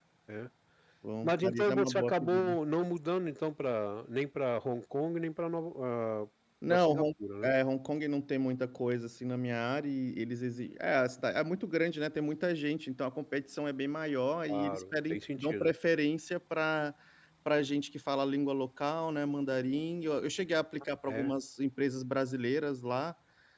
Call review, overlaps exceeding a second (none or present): present